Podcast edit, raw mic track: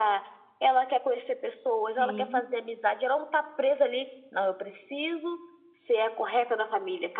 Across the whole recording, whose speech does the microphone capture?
both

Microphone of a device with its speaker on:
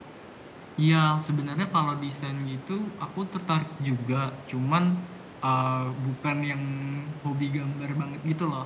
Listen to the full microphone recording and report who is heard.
user only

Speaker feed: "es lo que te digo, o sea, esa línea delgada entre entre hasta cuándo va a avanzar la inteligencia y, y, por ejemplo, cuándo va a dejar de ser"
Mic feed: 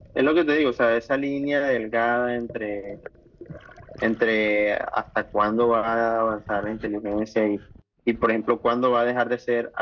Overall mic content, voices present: echo only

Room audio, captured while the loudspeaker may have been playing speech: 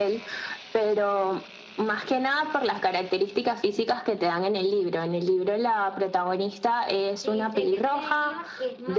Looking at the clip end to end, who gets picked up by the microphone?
both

